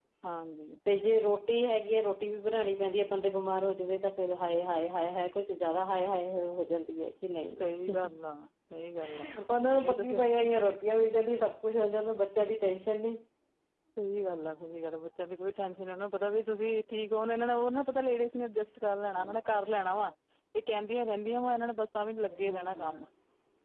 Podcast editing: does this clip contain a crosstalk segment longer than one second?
No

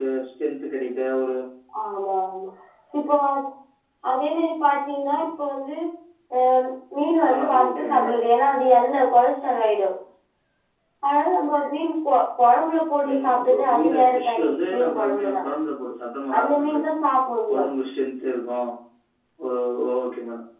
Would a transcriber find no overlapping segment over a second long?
No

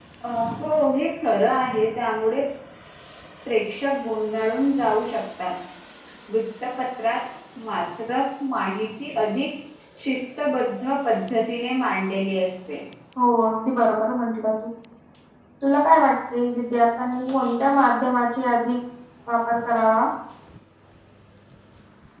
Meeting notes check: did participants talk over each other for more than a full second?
No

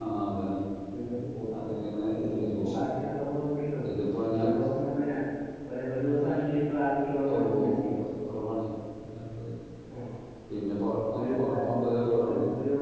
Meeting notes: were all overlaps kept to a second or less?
No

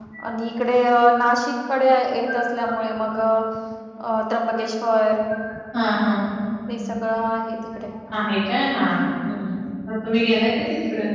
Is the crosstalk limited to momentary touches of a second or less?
Yes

